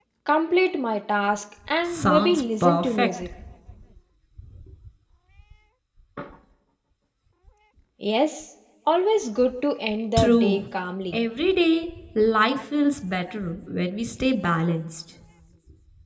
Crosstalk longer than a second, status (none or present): present